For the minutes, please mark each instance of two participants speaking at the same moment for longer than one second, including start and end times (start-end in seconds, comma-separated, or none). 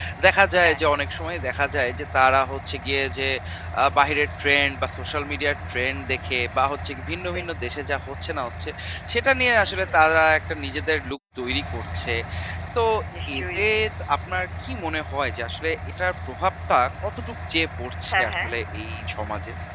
none